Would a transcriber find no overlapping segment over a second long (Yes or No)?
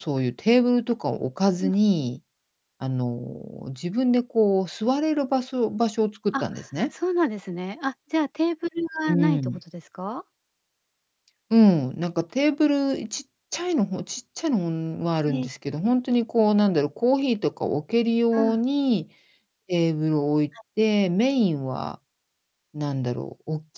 Yes